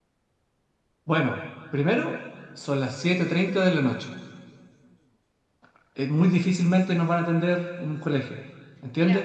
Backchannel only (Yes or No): Yes